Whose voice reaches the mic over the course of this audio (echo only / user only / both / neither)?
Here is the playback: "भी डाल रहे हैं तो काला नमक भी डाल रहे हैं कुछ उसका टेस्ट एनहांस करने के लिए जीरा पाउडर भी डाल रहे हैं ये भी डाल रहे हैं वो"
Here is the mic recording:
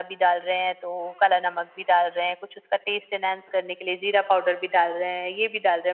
echo only